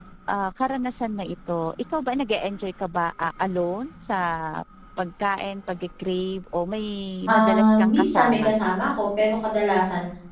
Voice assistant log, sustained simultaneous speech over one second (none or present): present